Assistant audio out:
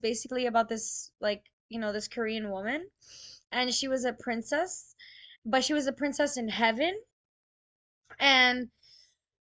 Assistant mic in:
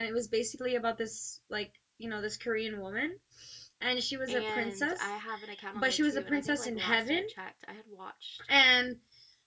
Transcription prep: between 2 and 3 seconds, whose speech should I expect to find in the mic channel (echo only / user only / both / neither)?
echo only